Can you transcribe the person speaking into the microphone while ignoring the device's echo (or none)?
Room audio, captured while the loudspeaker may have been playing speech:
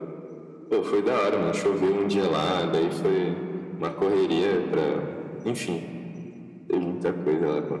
none